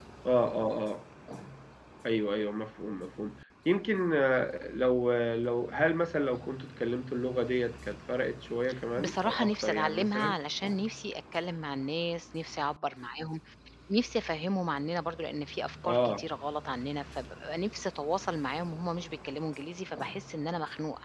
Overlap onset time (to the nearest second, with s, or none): 9 s